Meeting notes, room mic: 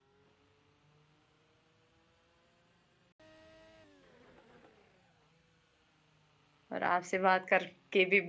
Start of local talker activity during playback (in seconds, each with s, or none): 6.7 s